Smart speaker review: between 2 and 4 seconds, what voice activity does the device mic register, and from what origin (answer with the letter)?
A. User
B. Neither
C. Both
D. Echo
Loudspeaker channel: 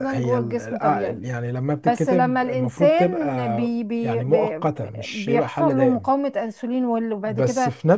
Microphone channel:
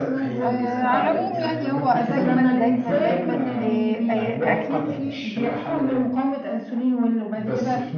C